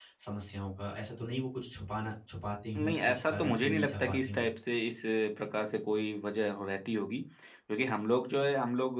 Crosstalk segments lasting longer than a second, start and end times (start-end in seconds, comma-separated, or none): 2.8-4.5